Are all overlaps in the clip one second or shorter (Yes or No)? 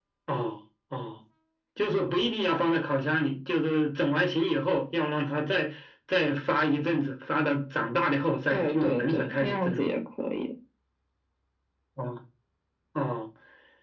No